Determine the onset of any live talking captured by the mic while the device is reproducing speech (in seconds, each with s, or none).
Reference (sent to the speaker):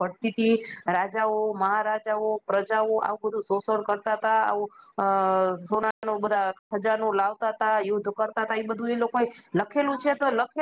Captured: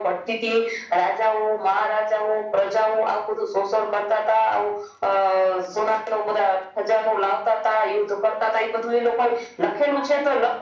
none